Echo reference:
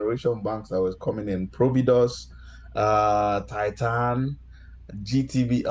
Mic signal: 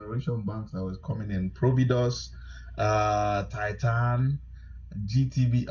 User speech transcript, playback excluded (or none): none